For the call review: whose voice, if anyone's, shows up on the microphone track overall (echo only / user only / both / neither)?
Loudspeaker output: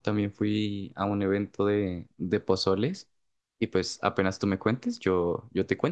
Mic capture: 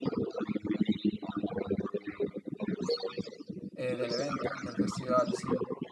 both